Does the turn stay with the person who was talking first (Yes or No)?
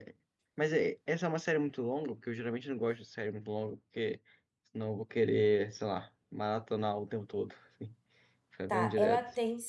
No